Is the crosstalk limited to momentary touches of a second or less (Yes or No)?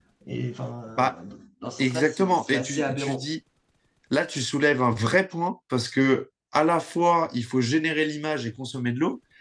No